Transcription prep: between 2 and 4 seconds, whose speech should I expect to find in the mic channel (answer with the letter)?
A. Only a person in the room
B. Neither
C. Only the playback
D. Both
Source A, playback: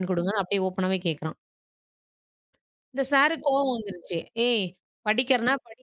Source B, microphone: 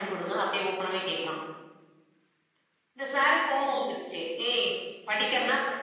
C